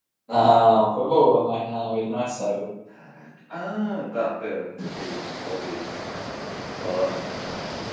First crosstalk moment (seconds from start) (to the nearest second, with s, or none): none